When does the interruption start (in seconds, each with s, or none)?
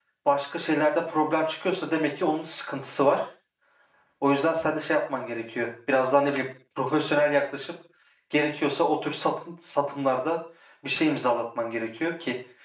none